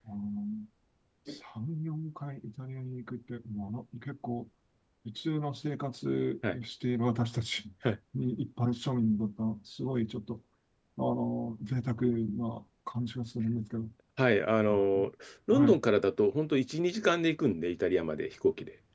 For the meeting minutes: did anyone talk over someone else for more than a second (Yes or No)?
No